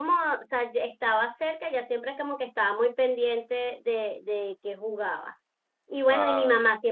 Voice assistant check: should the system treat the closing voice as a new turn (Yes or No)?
No